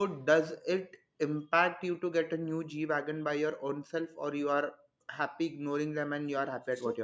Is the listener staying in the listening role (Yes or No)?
No